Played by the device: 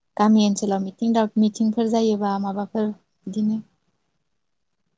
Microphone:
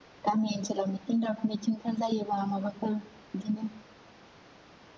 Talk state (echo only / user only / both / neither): echo only